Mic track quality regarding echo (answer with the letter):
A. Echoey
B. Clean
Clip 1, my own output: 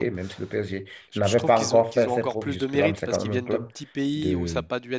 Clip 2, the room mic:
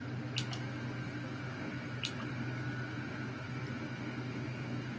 B